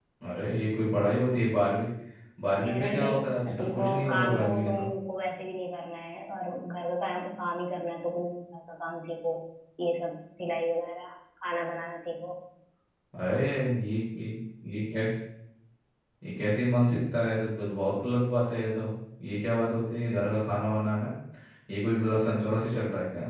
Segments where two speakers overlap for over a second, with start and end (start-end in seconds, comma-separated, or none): 2.6-4.9